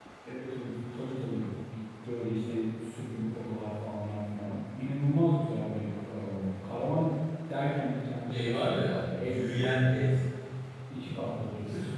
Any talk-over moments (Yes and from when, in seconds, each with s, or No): Yes, from 8.3 s